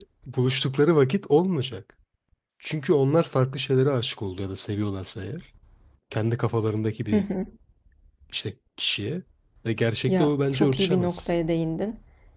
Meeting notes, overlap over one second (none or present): present